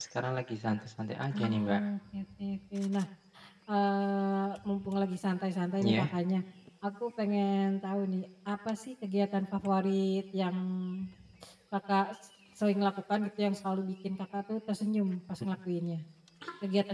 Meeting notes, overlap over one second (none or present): none